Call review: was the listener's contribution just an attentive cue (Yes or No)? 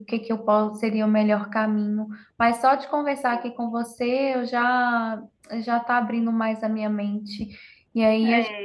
Yes